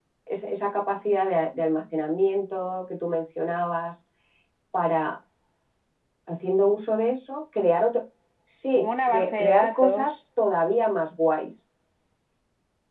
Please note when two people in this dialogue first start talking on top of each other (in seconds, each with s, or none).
8.8 s